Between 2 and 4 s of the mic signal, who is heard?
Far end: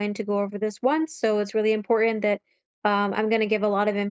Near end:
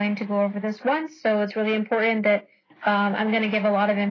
echo only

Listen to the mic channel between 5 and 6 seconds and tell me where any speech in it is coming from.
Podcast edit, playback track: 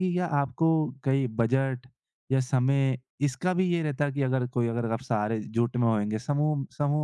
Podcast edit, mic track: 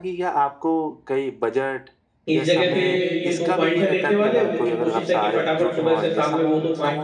both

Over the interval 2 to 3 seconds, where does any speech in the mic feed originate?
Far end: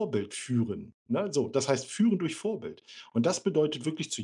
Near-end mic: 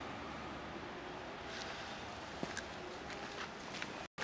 neither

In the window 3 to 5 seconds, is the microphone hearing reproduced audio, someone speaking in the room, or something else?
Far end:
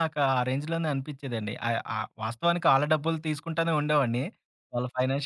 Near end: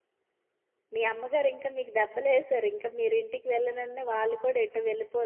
user only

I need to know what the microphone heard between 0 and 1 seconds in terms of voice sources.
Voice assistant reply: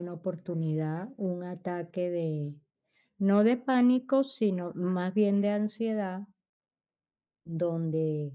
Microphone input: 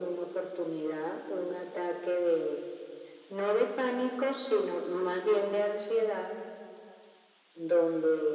echo only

